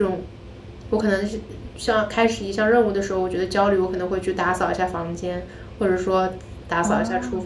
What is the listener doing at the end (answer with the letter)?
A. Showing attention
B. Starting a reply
B